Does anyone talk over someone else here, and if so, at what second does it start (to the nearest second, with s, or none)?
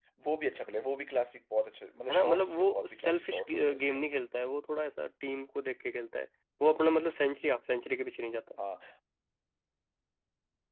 2 s